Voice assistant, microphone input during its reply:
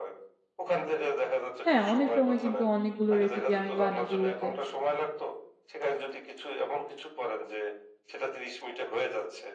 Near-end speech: present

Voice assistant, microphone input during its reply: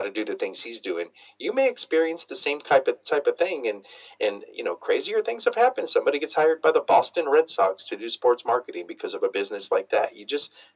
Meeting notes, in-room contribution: none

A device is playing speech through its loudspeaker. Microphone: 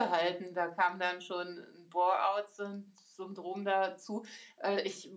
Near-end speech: none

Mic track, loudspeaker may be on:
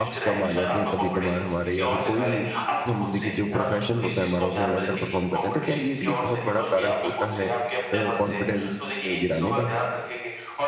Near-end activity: present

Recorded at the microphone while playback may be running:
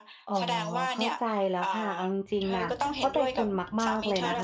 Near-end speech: present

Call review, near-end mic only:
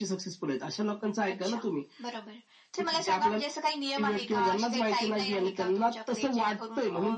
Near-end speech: none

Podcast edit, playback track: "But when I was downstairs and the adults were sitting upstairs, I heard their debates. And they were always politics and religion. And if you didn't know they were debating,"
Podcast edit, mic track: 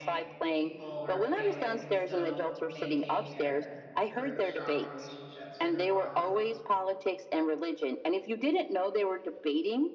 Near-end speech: present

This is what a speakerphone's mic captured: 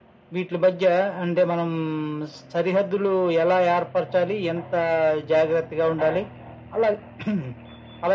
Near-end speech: none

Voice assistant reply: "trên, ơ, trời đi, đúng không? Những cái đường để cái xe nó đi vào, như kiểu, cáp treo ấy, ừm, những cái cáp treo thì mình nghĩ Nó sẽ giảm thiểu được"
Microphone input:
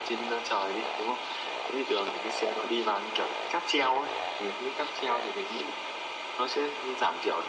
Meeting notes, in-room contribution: none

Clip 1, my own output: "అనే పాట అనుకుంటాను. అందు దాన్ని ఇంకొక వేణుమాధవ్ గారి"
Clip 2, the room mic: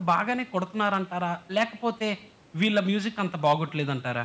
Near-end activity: present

